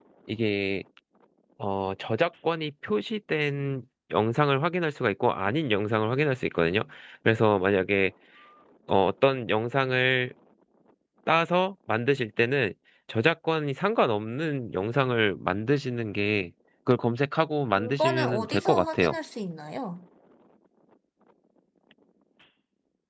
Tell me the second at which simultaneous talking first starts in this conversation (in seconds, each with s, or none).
17.8 s